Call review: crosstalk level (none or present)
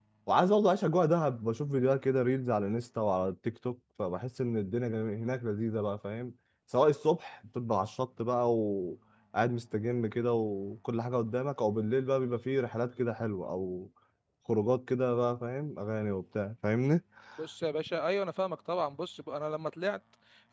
none